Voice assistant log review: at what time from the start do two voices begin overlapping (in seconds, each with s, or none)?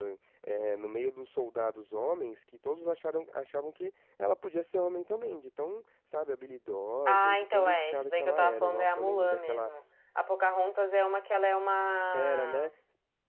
7.0 s